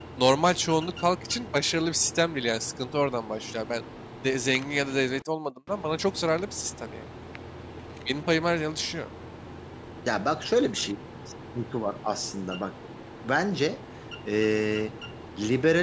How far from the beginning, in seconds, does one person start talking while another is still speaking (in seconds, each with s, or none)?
none